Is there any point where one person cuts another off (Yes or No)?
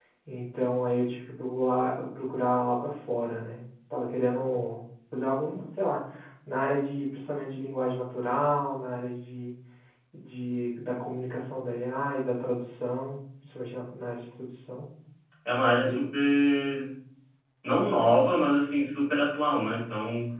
No